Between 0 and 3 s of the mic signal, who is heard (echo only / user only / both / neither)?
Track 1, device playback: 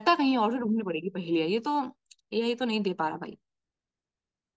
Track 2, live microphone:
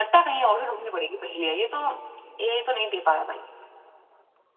echo only